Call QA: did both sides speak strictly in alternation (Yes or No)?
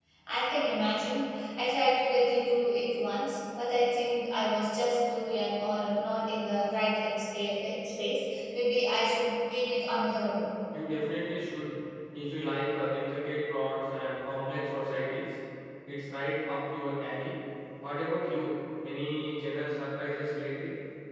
Yes